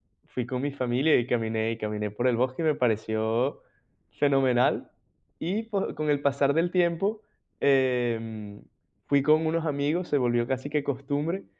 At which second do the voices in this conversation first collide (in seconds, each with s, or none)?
none